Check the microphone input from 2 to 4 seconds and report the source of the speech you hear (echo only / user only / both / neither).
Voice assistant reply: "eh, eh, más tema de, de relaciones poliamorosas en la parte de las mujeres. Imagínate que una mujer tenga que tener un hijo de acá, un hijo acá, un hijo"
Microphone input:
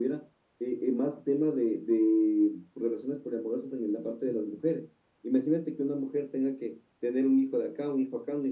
echo only